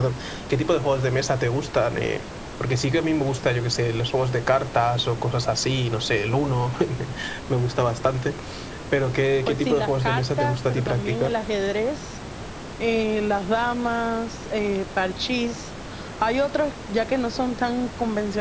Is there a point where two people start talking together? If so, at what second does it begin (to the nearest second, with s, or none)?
9 s